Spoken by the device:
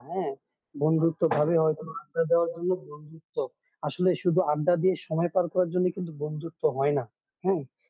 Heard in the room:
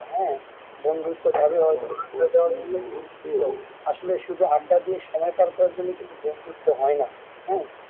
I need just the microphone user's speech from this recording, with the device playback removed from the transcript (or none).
আমার কঠিন মুহূর্তেও